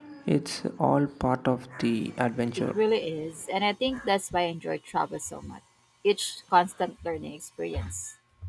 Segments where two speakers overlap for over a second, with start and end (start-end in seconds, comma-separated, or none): none